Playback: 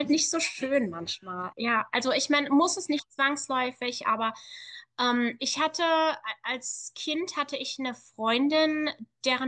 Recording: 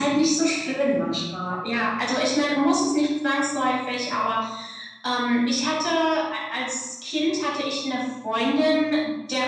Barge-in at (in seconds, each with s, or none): none